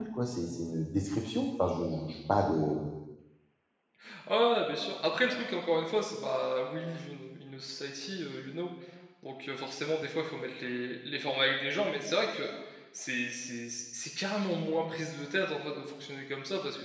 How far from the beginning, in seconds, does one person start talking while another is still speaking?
none

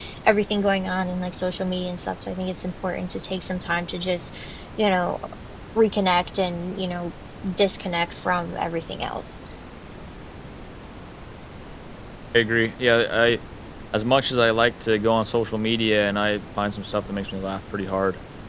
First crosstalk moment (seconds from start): none

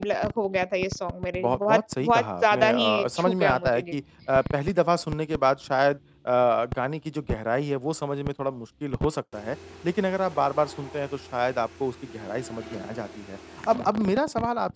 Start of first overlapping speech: 1.4 s

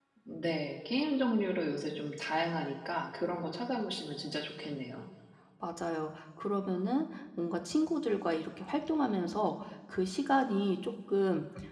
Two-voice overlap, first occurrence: none

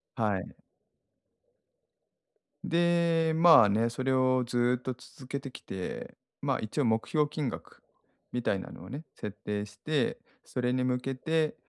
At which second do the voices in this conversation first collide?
none

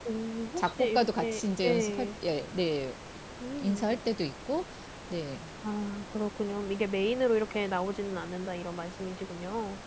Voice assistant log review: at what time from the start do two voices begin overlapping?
0.6 s

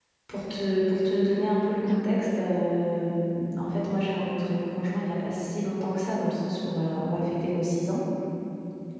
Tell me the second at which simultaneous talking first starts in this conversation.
none

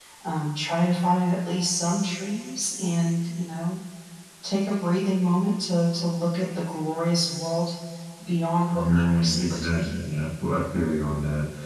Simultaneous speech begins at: 8.7 s

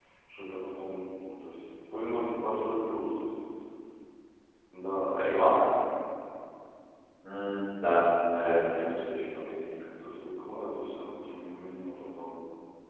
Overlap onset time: none

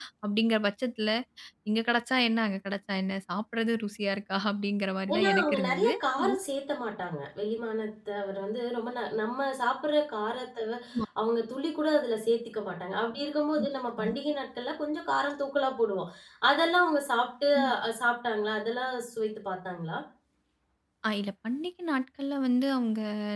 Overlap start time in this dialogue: 5.2 s

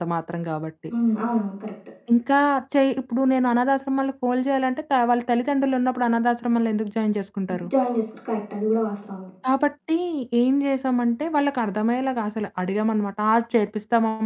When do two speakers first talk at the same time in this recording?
none

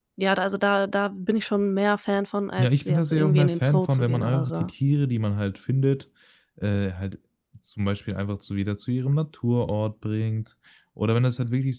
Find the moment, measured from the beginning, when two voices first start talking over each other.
2.6 s

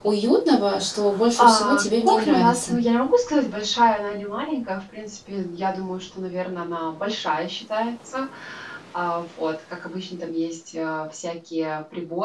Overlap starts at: 1.4 s

